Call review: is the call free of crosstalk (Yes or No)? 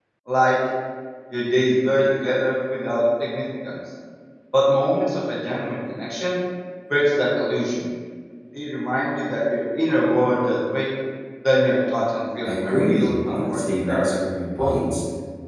No